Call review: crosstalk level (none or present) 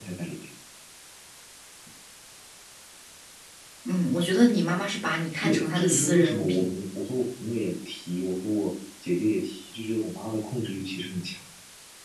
present